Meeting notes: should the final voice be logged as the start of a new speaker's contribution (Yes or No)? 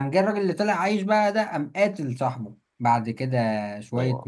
No